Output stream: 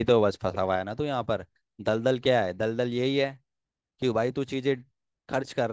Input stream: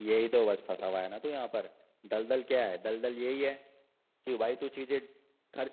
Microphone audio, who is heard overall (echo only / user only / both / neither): echo only